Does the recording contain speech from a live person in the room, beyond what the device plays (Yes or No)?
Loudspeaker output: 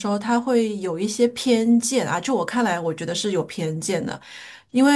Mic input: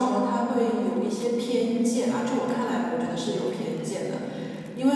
Yes